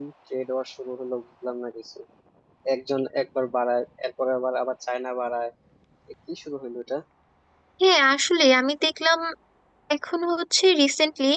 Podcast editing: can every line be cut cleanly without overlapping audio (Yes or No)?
Yes